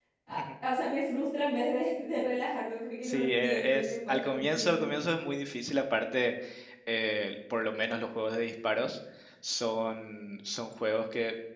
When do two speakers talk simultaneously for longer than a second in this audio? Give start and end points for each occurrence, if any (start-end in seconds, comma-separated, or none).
3.0-4.9